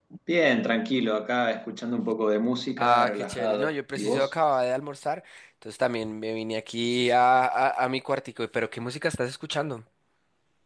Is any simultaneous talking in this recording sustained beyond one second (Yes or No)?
Yes